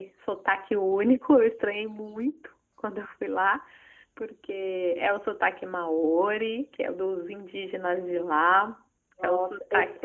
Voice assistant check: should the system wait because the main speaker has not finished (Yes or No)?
No